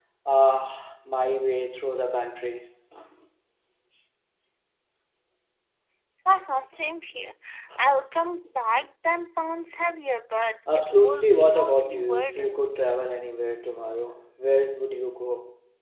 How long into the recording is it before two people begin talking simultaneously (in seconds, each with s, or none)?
10.7 s